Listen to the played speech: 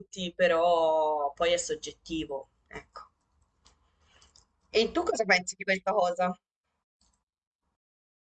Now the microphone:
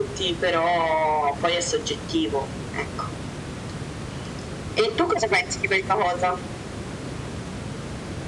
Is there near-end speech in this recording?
No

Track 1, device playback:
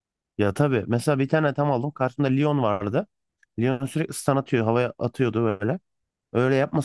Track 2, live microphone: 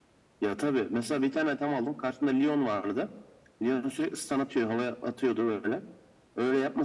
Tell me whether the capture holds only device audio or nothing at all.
Yes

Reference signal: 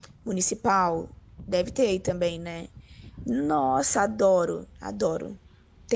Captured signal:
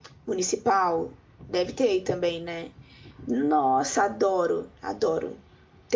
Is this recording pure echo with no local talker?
Yes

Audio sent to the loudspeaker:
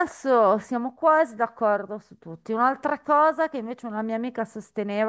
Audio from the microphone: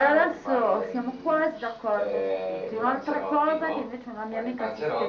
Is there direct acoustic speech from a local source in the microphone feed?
Yes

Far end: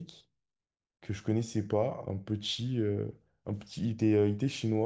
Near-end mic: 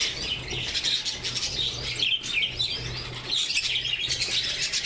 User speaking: No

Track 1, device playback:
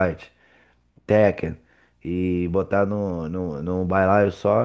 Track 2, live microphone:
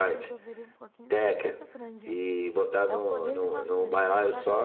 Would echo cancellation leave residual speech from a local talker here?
Yes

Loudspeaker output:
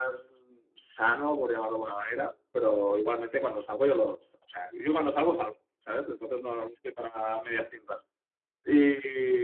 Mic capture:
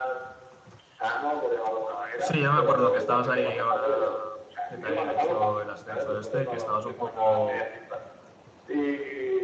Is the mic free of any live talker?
No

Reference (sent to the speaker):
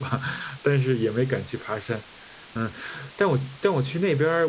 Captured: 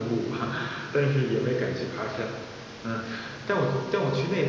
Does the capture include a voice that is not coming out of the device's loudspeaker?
No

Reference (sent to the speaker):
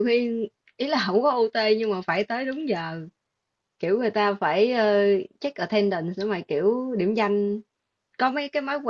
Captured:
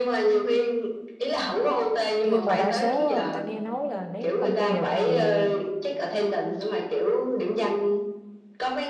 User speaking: Yes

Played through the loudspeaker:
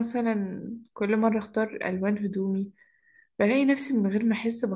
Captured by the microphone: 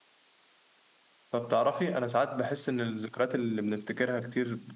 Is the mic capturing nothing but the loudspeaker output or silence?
No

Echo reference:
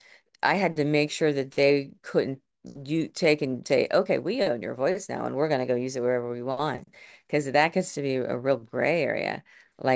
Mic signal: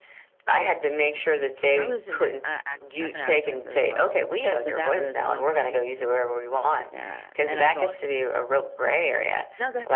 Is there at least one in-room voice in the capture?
Yes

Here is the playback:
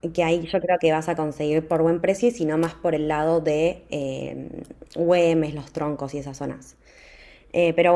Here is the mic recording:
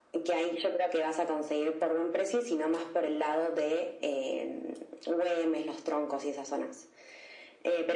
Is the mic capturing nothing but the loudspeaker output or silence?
Yes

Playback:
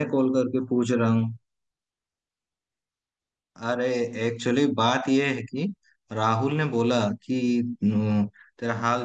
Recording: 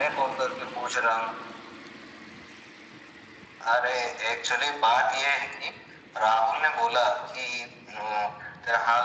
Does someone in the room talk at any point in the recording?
No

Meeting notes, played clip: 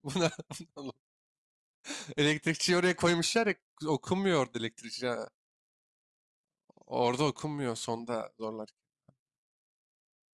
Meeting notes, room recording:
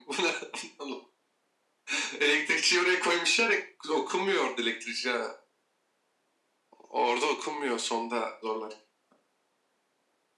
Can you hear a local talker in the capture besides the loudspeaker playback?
No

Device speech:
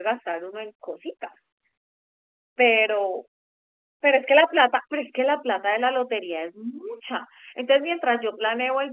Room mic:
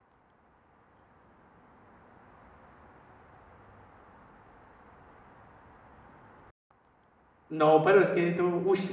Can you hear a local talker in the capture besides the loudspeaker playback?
Yes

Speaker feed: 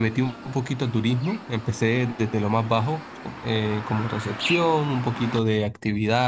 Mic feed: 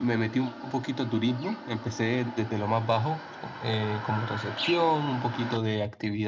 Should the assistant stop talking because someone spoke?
No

